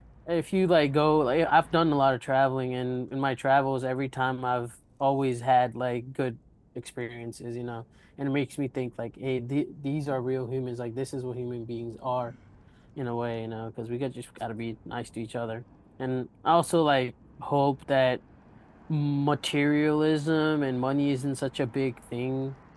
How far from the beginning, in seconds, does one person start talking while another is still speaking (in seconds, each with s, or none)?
none